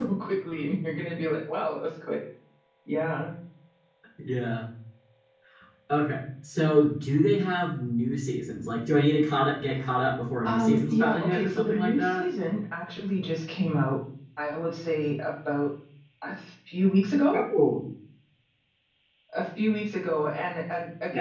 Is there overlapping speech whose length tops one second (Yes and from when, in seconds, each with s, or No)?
Yes, from 10.4 s